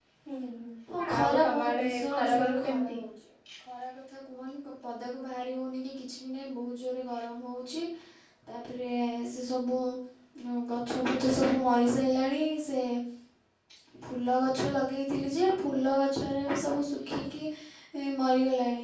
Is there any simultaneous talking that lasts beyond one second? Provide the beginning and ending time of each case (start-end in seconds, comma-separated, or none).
1.0-3.0